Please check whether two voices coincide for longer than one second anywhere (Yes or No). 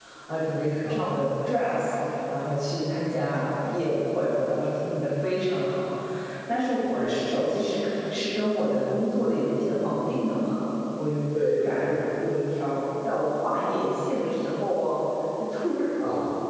No